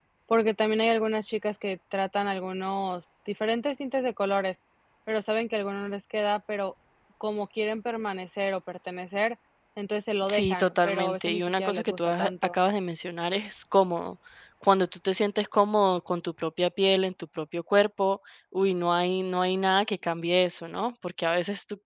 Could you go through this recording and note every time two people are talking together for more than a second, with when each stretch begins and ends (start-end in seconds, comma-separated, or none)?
10.3-12.6